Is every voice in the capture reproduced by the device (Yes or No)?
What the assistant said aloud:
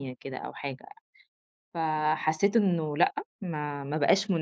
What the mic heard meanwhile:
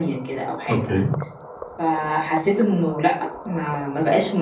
No